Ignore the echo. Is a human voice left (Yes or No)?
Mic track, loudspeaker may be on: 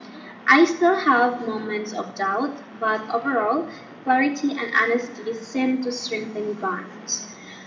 No